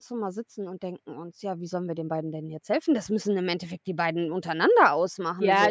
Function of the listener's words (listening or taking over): taking over